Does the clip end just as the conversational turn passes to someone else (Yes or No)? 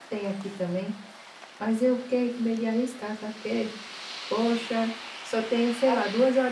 No